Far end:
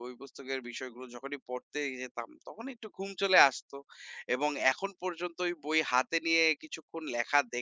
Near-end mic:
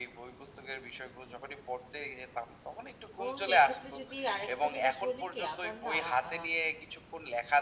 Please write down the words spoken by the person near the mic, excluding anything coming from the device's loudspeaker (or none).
এবং এক্ষেত্রে যদি আরেকটা জিনিস বলি কি, আমার না আ